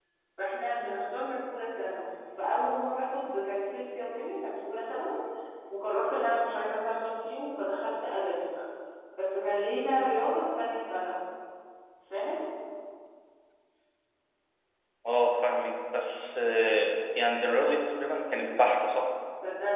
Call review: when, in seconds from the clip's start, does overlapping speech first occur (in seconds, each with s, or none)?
none